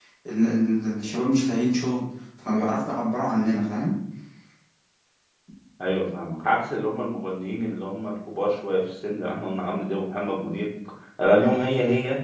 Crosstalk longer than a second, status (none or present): none